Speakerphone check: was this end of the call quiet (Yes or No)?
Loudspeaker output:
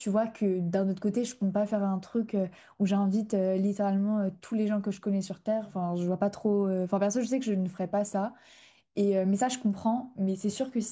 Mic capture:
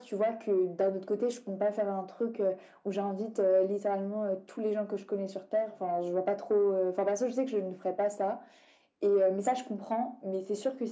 Yes